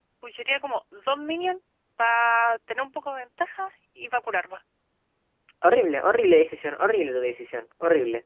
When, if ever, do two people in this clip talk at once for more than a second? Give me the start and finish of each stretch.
none

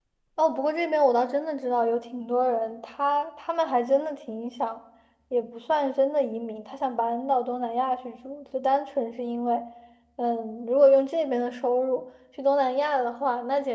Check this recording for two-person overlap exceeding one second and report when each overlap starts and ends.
none

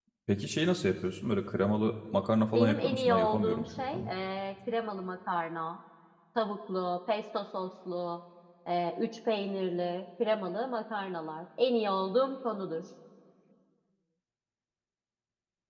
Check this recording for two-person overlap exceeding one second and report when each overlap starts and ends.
2.5-4.0

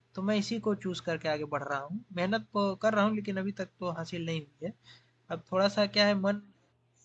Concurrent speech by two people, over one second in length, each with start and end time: none

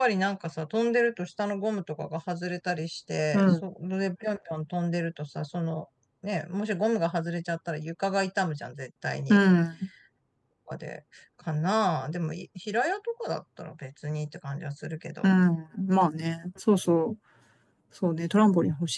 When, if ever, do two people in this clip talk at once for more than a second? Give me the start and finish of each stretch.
none

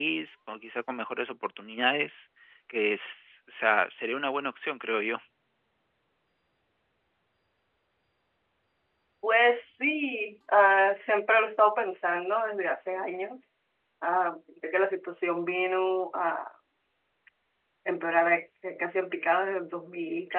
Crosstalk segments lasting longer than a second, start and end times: none

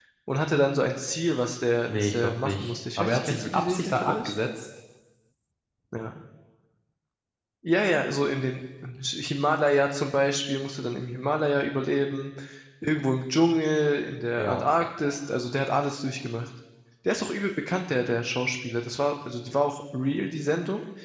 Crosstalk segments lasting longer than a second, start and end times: 1.9-4.3

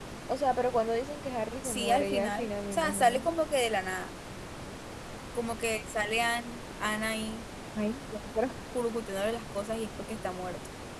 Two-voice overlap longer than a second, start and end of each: 1.6-3.2

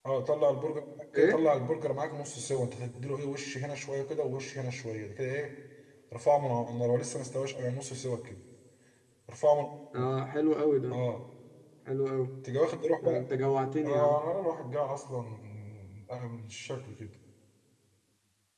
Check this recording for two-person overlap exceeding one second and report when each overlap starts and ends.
none

